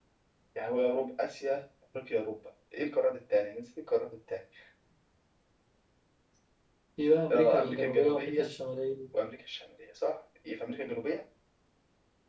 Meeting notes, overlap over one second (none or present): present